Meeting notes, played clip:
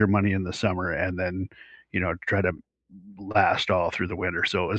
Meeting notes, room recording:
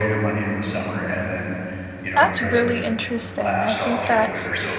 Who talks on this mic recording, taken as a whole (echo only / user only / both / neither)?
both